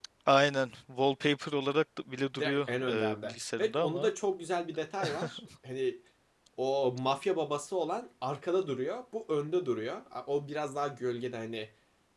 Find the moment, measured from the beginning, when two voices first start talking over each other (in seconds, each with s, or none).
2.4 s